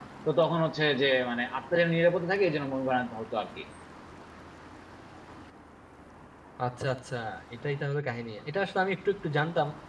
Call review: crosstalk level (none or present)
none